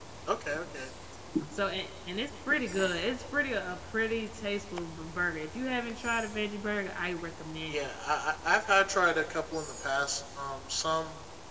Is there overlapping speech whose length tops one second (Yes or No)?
No